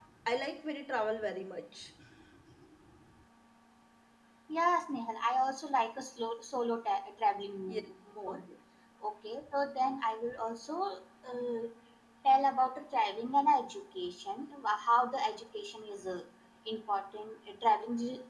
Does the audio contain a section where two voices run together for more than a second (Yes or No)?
No